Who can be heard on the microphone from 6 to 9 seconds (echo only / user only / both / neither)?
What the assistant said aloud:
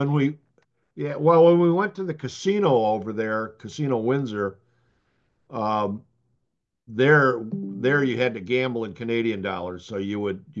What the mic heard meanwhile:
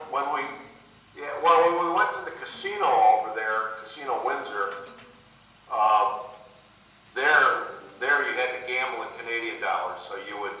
echo only